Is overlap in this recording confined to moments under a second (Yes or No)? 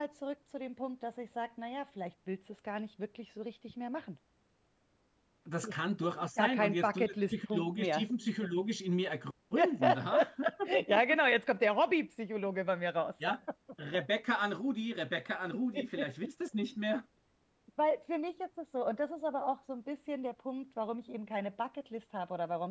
No